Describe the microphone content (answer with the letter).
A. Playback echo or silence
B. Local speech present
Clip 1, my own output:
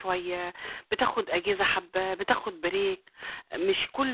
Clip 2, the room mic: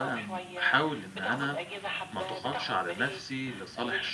B